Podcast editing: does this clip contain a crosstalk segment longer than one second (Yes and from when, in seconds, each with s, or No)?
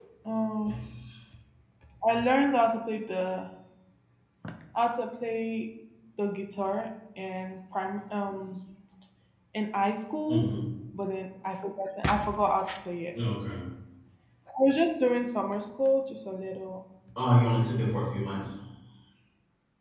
No